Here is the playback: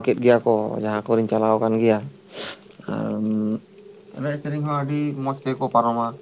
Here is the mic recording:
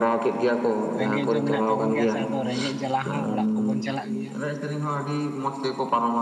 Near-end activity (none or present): present